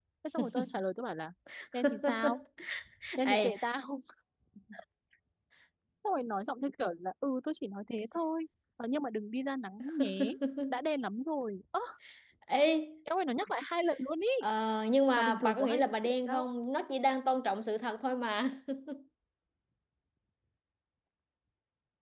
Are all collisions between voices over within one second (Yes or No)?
No